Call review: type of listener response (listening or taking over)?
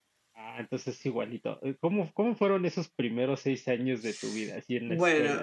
taking over